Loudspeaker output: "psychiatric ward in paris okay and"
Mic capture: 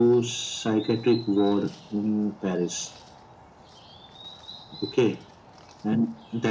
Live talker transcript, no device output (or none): none